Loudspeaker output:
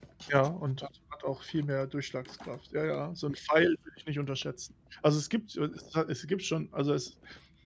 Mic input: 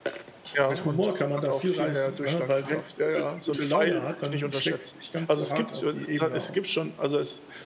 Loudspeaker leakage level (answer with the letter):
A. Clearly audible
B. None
A